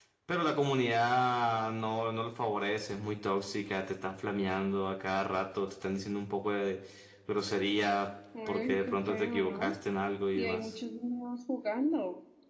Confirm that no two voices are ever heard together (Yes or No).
No